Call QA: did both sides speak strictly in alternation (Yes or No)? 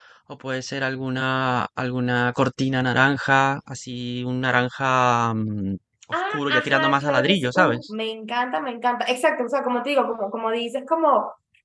No